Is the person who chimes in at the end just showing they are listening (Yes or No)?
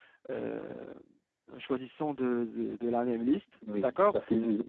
No